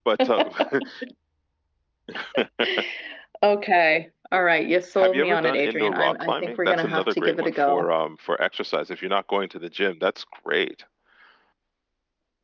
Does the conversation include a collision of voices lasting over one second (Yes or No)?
Yes